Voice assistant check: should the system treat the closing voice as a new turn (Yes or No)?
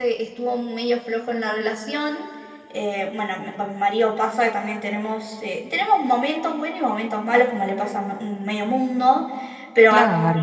No